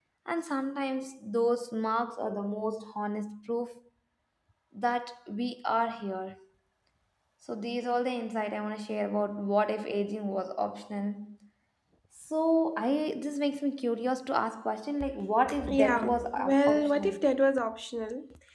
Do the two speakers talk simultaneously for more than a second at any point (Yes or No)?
Yes